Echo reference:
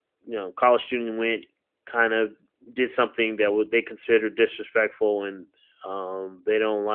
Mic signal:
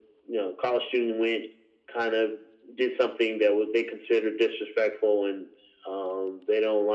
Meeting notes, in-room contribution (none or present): none